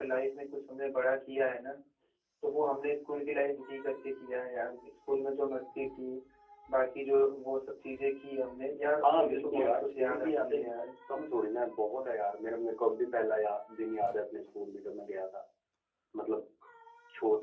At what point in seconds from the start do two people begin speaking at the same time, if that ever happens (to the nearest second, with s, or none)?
9 s